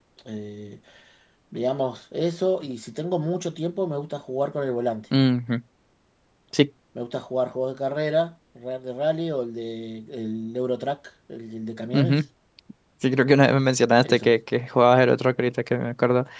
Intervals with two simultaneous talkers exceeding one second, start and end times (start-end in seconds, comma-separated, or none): none